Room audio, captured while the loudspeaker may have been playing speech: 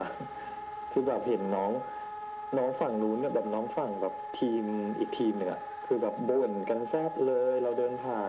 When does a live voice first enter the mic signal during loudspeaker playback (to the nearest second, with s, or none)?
none